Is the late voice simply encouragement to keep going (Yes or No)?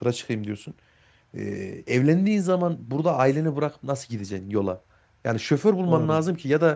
Yes